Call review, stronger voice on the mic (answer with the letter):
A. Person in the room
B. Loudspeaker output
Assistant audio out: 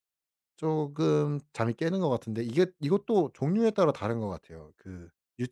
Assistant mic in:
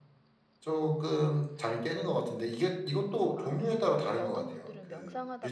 B